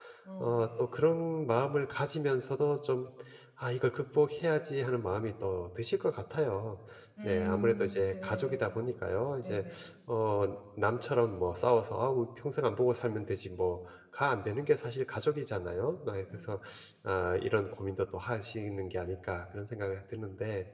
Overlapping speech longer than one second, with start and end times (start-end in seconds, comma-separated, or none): 7.2-8.8